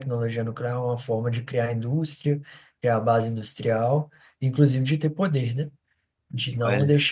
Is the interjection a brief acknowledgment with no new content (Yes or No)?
Yes